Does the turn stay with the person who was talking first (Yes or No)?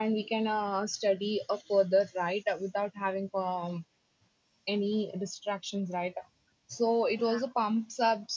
Yes